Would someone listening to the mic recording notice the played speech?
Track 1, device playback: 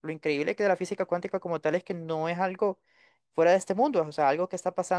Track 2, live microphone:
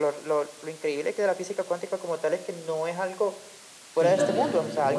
Yes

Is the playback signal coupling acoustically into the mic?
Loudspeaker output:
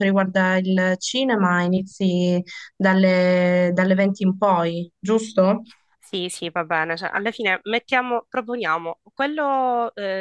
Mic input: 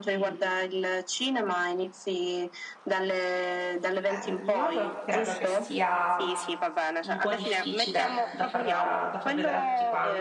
Yes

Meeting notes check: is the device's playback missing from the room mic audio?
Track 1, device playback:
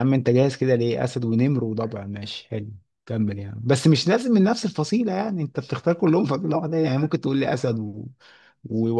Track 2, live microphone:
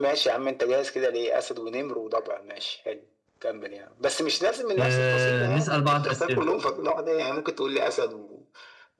No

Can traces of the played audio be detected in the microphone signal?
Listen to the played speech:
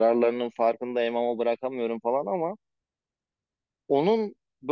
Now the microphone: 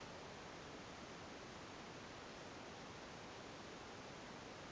No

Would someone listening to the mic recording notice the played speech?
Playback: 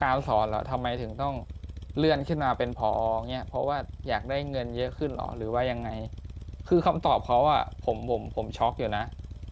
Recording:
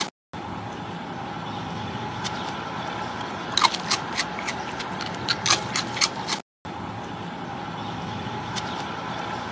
No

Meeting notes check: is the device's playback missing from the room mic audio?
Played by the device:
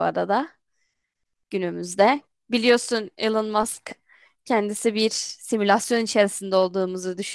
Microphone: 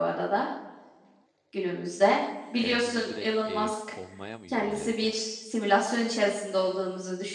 No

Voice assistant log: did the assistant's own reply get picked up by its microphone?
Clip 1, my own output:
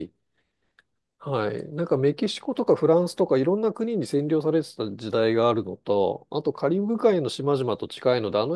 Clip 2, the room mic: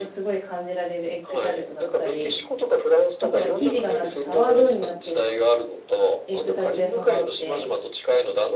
Yes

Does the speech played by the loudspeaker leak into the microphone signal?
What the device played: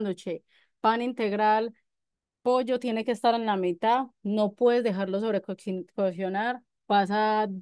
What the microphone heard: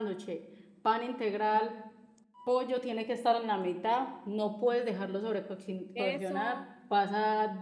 Yes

